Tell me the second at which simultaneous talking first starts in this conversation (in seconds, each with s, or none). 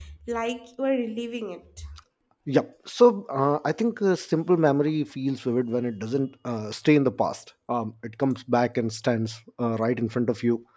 none